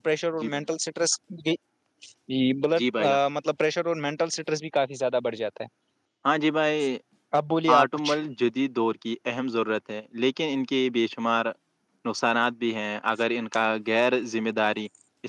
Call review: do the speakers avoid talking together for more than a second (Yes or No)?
Yes